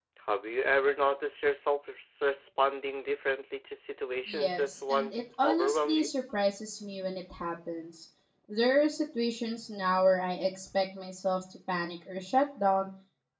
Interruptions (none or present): present